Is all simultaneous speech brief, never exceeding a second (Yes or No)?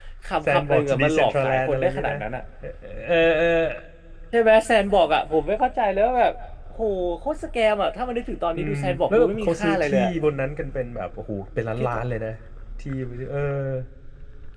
No